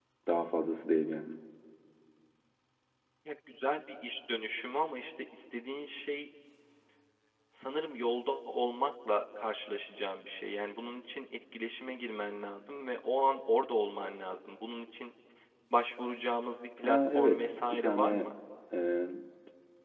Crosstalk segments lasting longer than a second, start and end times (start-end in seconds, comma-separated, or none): 16.8-18.3